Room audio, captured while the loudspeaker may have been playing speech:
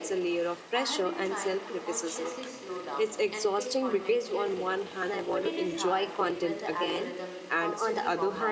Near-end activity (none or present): present